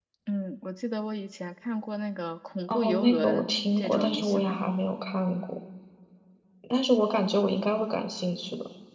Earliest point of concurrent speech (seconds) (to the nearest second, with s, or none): 3 s